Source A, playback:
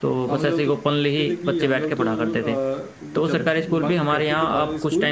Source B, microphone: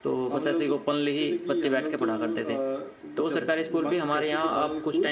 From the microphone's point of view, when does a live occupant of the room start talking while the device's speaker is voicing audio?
none

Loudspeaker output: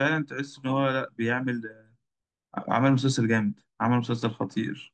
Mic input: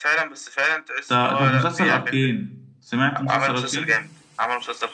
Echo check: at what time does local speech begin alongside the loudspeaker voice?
1 s

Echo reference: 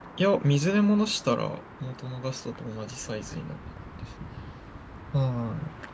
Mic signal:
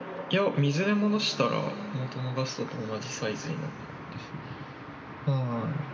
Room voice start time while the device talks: none

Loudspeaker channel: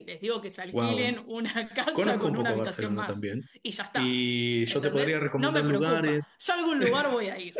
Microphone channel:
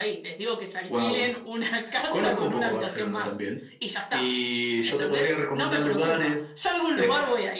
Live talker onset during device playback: none

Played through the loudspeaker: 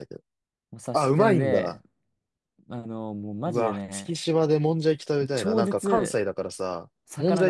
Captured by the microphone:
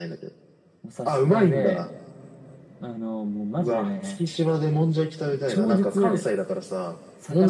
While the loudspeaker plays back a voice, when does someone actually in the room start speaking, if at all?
none

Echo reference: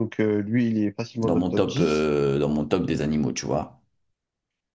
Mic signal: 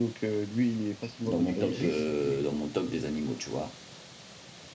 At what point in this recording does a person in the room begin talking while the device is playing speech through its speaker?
1 s

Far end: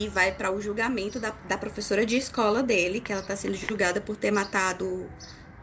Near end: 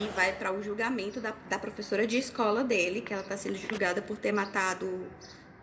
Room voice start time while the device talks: none

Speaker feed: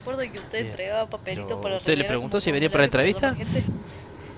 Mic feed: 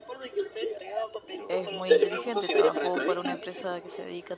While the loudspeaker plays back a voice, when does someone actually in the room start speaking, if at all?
1 s

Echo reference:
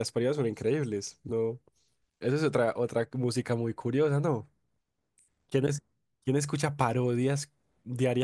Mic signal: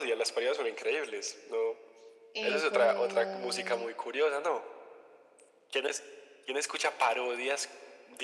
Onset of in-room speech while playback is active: 2 s

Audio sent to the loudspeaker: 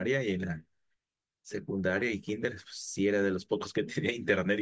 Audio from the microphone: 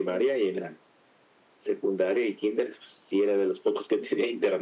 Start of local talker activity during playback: none

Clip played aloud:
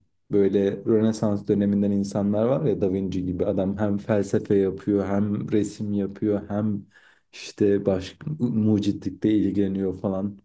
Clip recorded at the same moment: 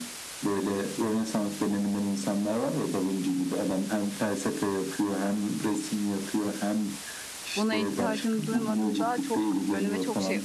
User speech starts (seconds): 8 s

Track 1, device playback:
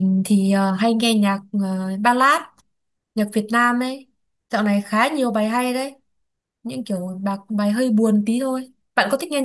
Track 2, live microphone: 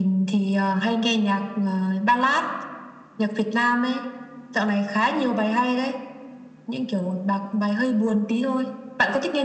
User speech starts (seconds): none

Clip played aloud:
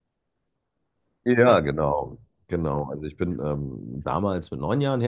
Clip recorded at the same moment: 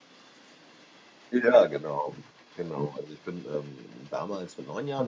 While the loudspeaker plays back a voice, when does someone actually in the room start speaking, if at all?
none

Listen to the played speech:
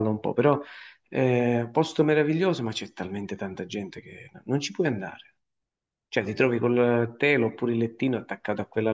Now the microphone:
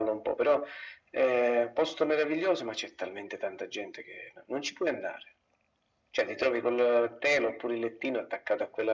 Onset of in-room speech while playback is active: none

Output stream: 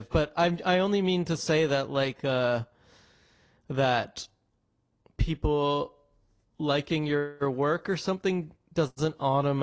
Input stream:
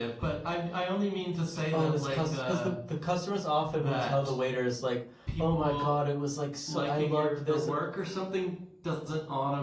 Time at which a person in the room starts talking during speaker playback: 2 s

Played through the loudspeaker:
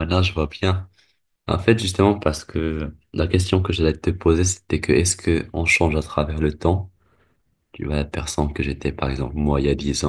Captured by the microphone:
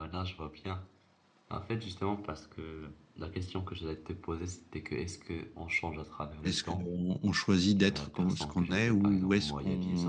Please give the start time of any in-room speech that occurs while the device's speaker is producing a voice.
6 s

